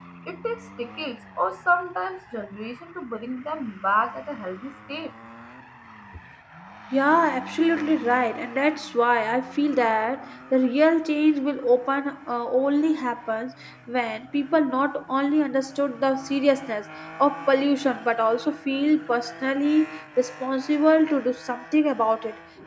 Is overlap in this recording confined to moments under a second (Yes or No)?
Yes